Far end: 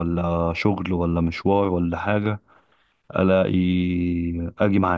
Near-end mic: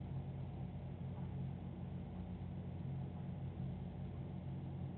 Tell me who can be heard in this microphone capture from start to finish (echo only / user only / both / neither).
neither